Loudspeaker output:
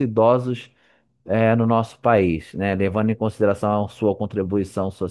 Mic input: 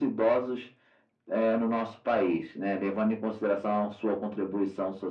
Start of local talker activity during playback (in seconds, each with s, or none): none